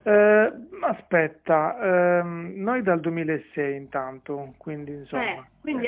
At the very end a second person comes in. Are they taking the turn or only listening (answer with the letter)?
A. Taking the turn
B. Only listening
A